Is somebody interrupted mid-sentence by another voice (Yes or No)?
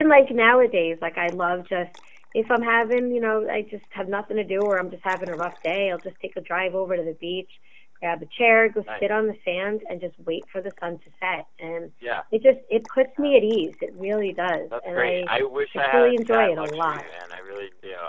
Yes